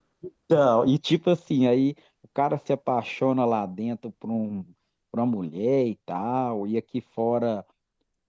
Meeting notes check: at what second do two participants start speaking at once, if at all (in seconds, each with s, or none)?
none